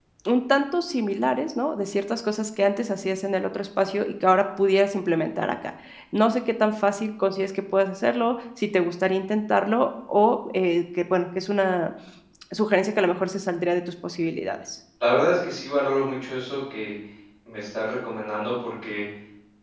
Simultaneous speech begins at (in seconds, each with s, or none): none